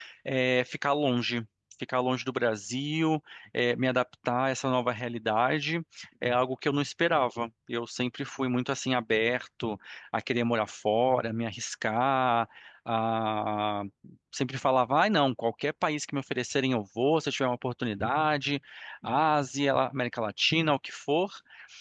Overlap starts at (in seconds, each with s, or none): none